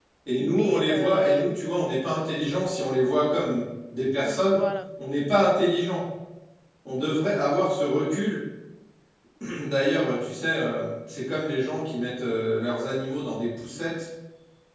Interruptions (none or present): present